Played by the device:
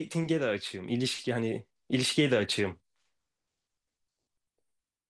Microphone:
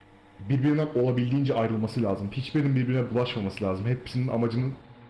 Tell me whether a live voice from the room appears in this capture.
Yes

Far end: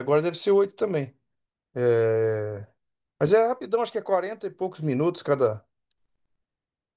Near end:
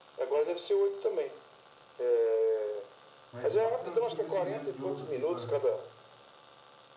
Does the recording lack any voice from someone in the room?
No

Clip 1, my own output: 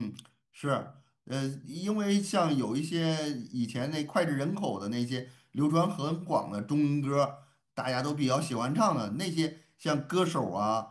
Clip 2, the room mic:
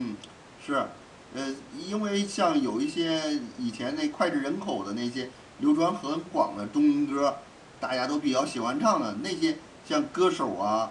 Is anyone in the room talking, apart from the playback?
No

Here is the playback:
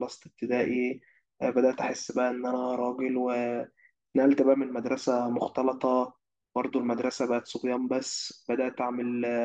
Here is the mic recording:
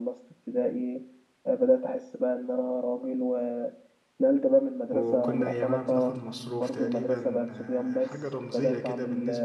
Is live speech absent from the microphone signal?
No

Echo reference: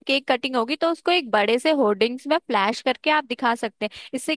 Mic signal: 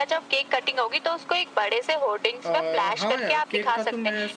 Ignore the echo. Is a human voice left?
Yes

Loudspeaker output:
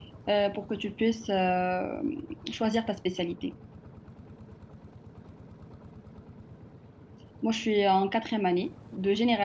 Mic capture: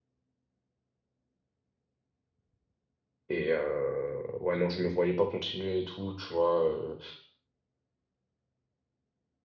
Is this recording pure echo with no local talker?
No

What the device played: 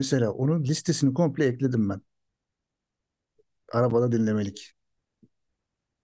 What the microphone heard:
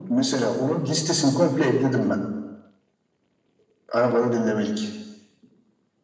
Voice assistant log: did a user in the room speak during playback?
No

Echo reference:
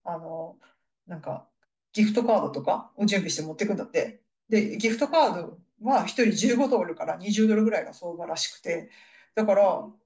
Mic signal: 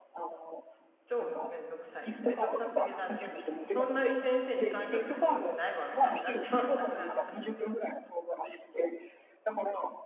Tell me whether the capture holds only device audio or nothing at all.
No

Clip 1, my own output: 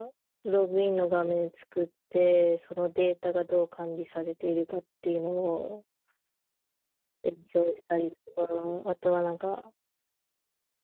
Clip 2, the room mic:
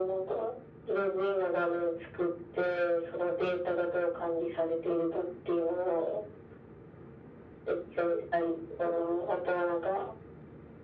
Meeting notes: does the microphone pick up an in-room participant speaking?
No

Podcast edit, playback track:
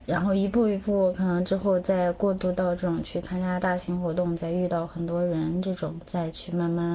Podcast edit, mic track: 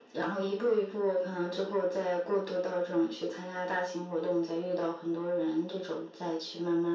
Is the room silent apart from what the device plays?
Yes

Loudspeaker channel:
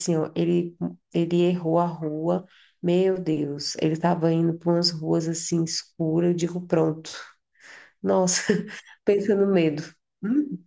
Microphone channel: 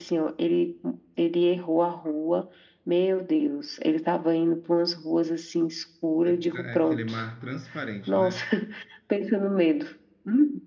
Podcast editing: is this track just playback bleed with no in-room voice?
No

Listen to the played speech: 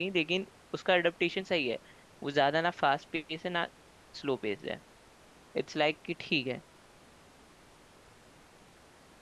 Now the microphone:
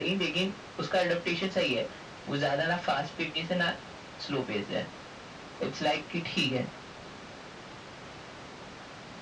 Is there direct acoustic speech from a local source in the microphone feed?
No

